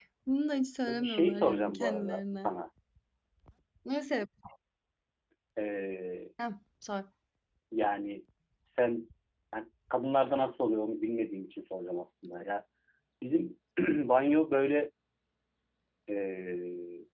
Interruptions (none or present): present